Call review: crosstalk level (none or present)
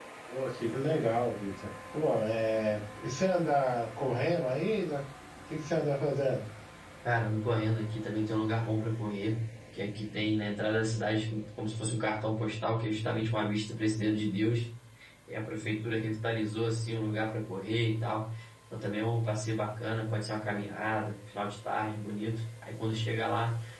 none